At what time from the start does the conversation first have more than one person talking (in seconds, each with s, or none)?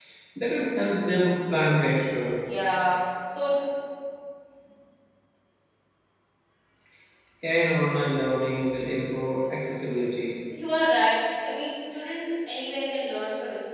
none